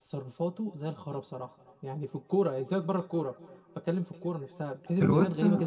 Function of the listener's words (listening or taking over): taking over